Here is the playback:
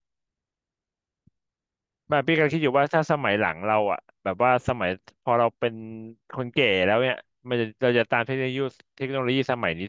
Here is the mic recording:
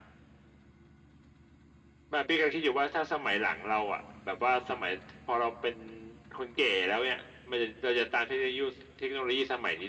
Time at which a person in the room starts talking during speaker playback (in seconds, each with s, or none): none